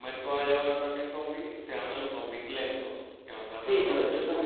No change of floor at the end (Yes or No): No